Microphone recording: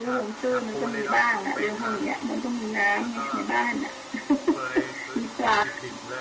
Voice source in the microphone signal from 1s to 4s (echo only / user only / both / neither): both